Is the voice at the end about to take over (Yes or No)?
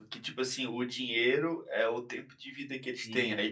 No